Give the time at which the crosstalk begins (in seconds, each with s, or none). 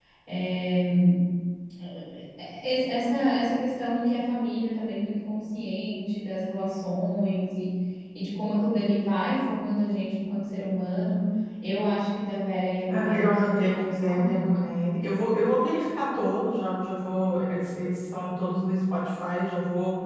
12.9 s